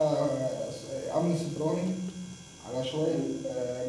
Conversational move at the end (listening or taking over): listening